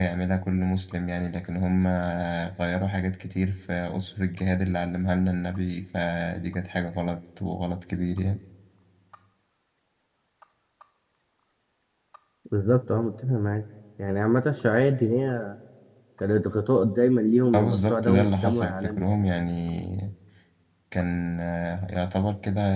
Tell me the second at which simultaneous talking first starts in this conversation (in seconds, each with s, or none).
17.5 s